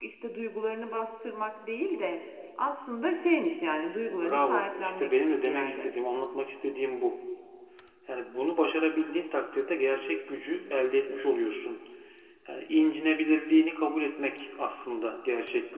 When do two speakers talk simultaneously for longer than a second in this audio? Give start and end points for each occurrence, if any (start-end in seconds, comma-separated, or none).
4.1-5.9